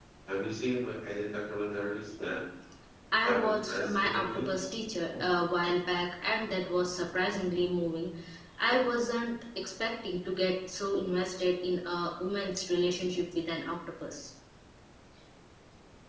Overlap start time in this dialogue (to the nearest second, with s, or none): 3 s